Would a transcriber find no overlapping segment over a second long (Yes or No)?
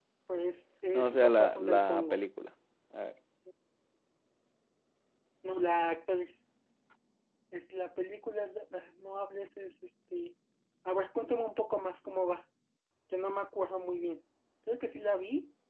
No